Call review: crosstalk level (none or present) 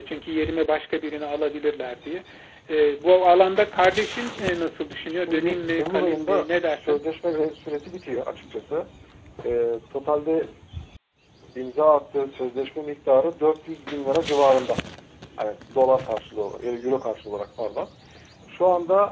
present